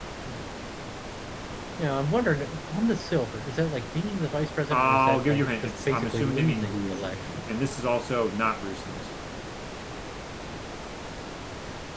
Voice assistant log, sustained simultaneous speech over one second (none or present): present